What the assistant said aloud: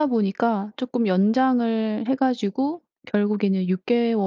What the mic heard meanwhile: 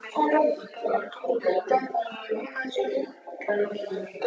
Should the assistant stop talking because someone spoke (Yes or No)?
No